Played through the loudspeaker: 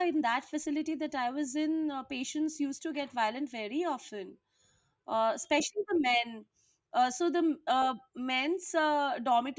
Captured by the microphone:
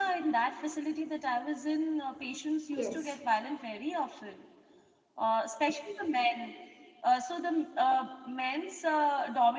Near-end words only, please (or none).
Yes.